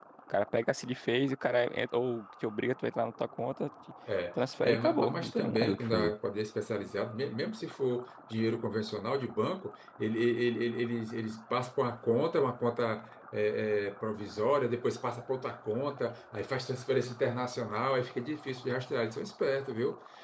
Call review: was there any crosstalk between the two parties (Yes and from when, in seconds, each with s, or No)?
Yes, from 4.6 s